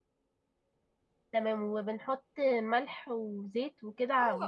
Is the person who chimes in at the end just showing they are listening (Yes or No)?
No